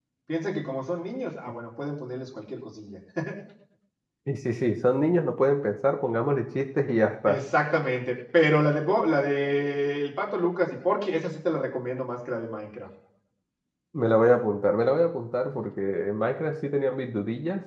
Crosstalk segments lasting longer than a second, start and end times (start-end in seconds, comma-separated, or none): none